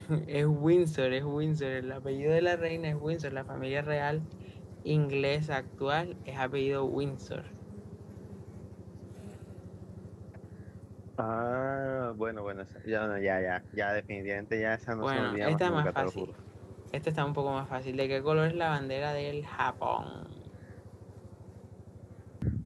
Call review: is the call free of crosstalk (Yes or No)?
No